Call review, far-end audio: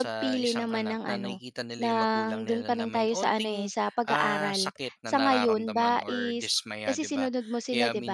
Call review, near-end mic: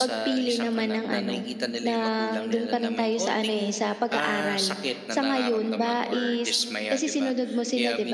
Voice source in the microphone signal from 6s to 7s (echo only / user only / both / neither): echo only